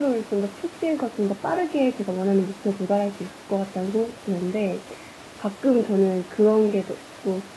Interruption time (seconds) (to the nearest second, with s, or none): none